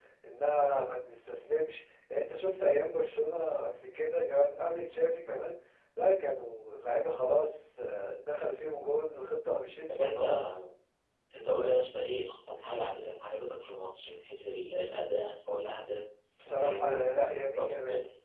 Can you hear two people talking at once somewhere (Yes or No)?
Yes